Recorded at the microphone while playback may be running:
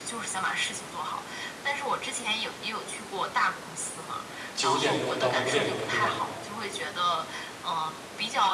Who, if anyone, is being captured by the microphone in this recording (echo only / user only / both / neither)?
both